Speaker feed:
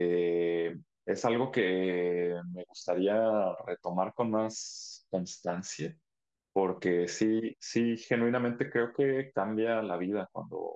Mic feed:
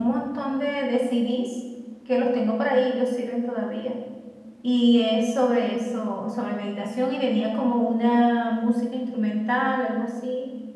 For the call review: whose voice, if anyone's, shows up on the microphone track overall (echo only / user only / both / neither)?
user only